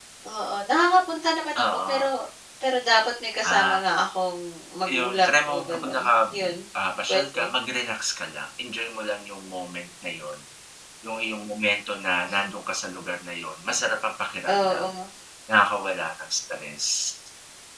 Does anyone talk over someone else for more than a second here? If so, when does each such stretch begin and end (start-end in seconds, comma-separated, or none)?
4.9-6.4